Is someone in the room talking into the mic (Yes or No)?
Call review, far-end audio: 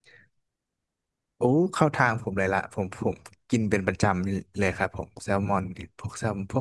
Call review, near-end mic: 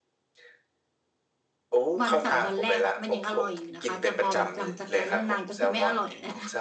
Yes